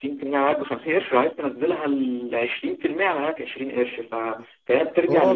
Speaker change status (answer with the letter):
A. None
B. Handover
B